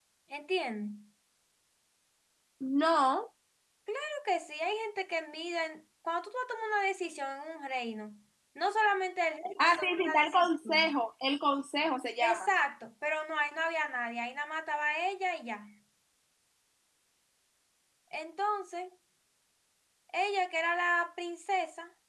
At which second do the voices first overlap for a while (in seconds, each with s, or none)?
9.6 s